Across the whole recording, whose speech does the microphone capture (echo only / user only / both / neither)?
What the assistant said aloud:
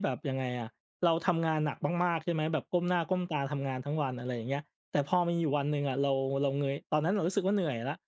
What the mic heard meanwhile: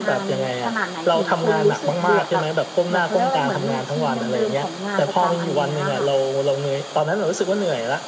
both